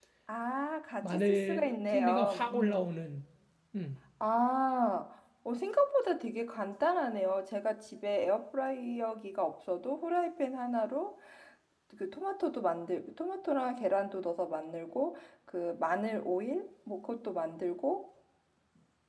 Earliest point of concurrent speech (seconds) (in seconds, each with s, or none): 1.0 s